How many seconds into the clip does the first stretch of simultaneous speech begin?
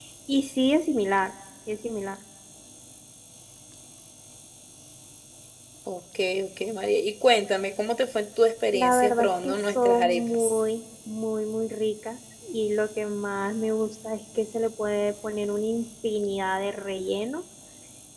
8.7 s

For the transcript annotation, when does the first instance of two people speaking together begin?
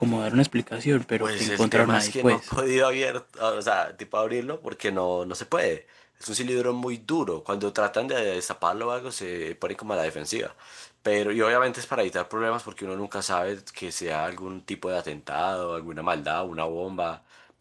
1.1 s

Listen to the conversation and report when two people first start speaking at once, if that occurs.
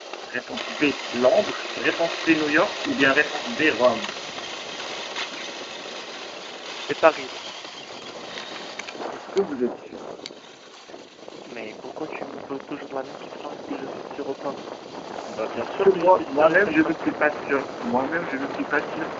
15.6 s

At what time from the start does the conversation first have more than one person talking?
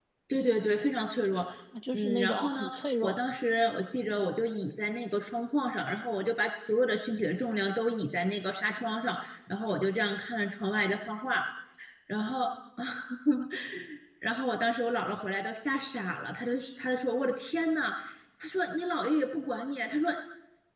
1.9 s

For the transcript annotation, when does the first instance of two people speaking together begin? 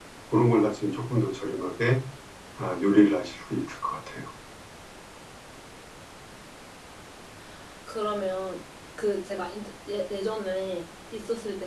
none

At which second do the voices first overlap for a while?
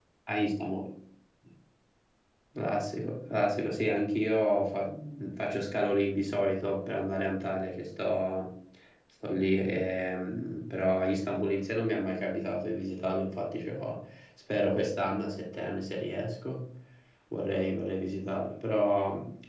none

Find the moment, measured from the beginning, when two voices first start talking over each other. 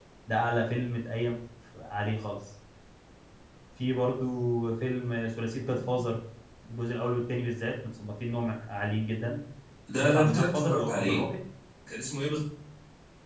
10.0 s

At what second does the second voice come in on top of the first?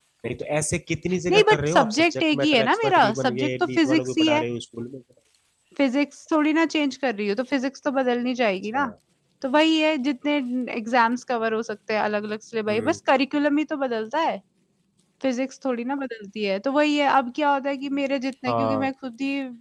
1.3 s

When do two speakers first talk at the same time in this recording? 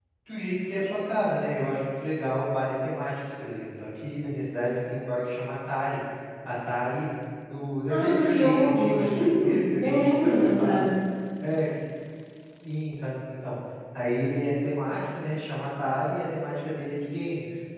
7.9 s

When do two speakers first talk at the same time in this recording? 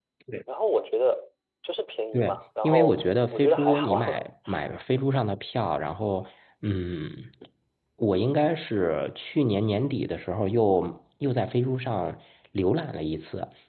2.1 s

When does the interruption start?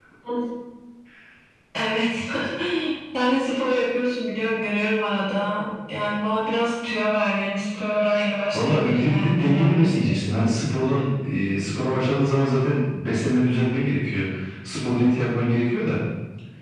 8.5 s

